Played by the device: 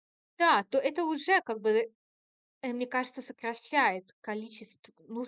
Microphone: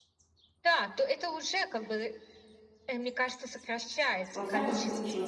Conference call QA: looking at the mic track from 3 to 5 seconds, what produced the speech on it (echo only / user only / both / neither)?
both